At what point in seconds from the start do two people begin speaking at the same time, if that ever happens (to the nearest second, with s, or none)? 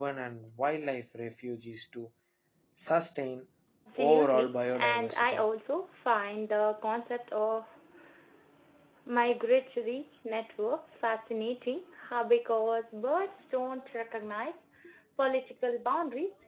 4 s